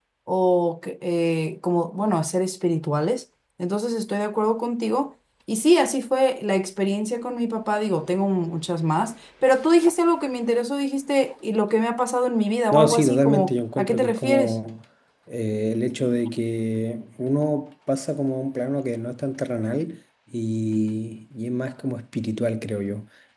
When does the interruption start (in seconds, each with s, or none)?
12.7 s